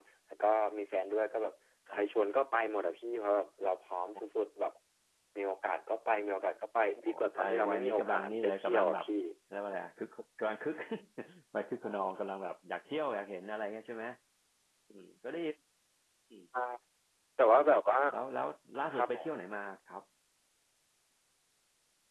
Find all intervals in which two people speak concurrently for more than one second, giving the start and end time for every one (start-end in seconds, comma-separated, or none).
7.1-9.1